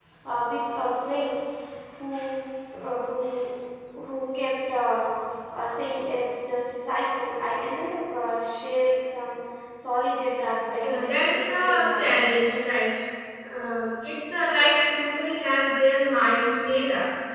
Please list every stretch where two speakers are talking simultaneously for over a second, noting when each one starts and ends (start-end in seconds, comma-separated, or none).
10.8-12.1